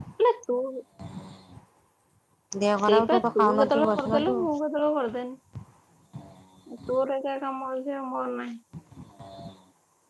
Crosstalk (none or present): present